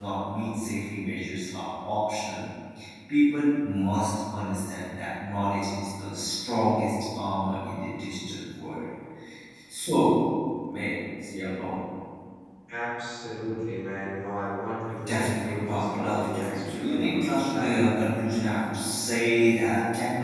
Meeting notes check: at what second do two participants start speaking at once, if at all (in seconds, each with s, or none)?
15.0 s